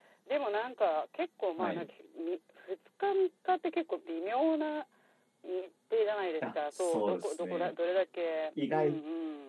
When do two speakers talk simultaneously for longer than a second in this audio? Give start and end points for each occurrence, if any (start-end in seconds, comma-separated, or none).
6.4-7.7